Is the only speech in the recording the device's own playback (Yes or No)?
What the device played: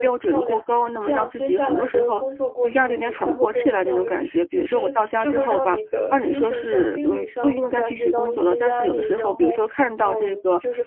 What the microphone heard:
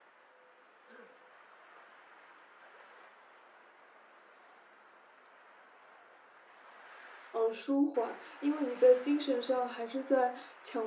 No